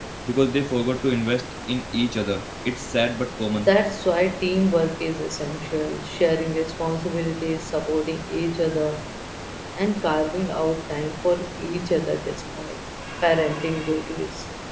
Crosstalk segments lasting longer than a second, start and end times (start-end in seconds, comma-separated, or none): none